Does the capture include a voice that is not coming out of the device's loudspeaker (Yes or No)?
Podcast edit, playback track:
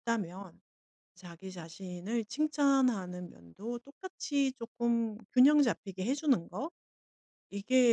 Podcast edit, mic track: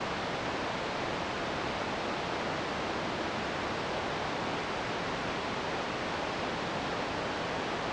No